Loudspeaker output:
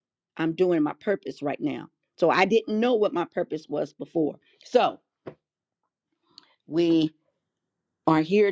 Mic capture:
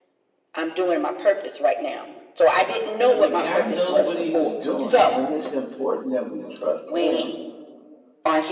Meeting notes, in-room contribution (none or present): present